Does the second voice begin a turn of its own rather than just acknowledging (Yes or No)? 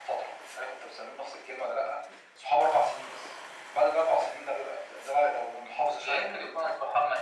Yes